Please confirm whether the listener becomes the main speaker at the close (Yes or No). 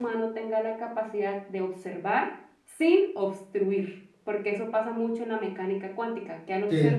Yes